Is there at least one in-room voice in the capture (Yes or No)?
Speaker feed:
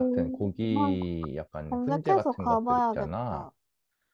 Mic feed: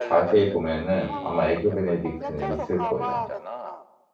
Yes